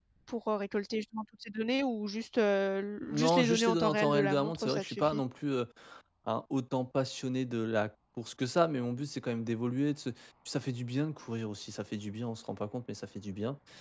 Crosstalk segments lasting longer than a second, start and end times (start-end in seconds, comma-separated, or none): 3.0-5.2